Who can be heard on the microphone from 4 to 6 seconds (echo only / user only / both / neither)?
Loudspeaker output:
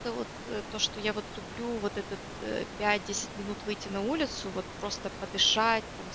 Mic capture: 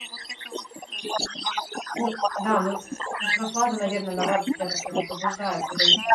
both